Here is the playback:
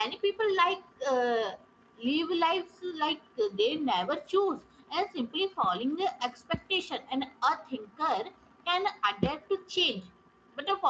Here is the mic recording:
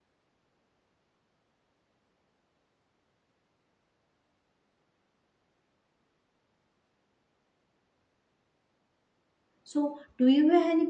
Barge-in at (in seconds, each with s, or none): 9.6 s